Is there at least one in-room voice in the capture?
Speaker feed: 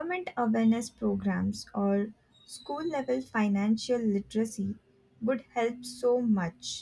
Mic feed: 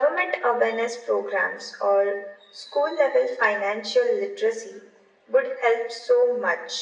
No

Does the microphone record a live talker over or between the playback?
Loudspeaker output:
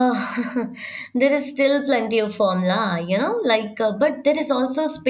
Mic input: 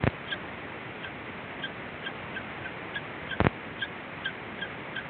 No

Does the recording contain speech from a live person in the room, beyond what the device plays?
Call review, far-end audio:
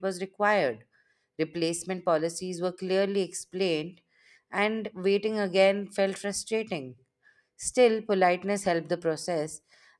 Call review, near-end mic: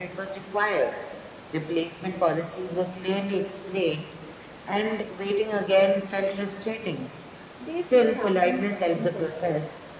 Yes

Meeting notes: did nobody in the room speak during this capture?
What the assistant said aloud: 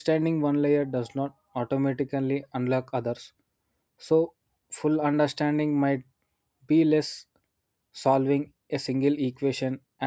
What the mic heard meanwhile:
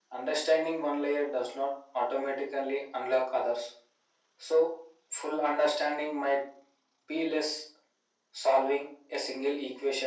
Yes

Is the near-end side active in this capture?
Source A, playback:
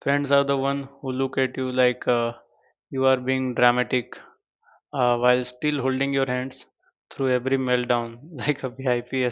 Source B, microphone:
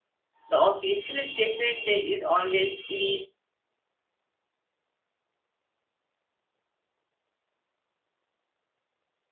Yes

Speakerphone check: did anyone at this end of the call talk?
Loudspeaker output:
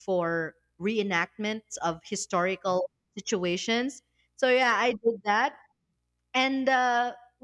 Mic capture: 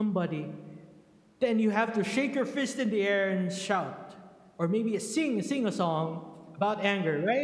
Yes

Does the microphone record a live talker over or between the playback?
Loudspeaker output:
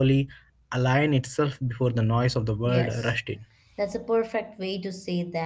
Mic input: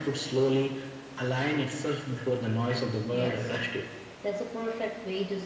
No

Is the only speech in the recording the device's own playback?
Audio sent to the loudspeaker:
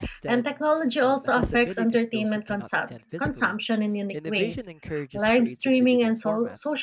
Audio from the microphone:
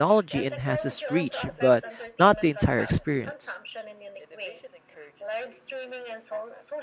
No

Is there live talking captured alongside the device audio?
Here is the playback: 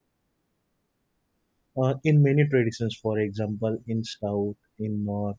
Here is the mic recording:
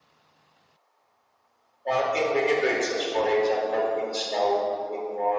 No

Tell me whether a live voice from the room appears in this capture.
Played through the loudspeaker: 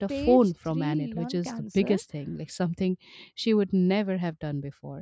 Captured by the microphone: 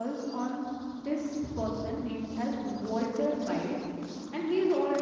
Yes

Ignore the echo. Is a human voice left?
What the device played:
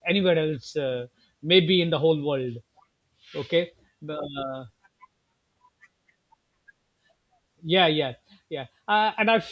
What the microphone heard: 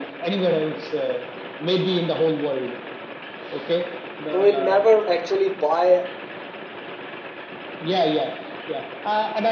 Yes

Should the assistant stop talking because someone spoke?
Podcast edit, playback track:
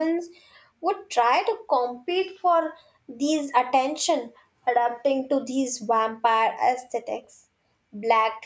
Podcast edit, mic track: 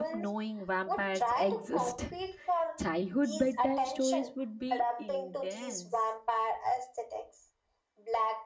Yes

